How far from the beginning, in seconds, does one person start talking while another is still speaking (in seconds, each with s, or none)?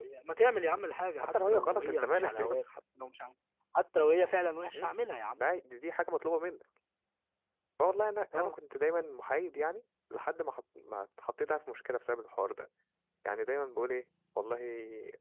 1.3 s